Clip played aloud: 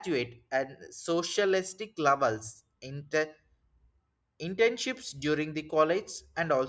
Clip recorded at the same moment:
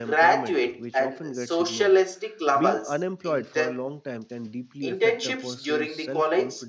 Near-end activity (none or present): present